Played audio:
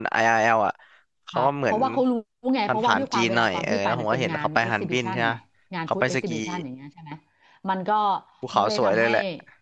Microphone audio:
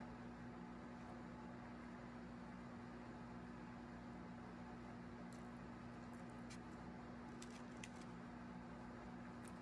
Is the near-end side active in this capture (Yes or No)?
No